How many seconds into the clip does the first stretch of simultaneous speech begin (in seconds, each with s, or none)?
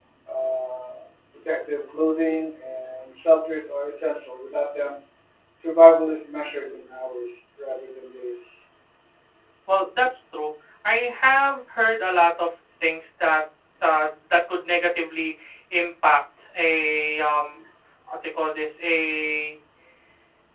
none